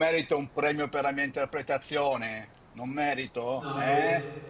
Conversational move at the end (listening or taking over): taking over